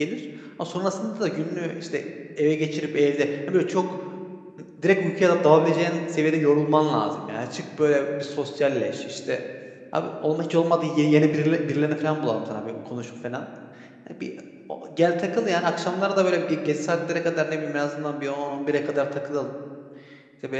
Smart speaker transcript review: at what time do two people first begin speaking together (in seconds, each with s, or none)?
none